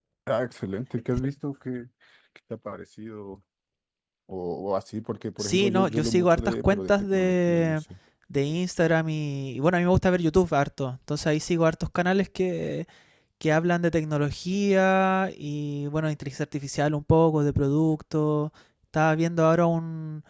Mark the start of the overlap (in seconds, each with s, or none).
5.4 s